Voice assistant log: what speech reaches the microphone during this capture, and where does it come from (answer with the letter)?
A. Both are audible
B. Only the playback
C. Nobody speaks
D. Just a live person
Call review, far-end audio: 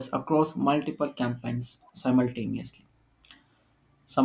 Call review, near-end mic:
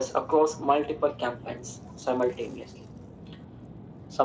B